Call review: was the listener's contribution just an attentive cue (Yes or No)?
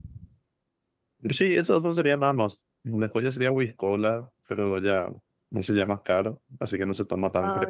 No